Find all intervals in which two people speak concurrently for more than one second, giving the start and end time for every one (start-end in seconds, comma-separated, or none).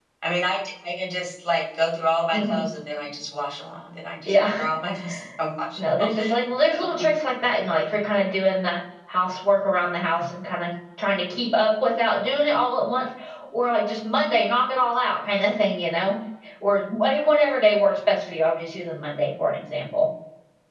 none